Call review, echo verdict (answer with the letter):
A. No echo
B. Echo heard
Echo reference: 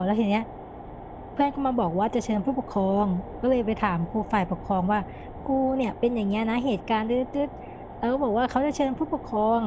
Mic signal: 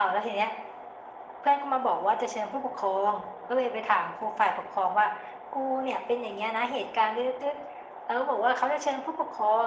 B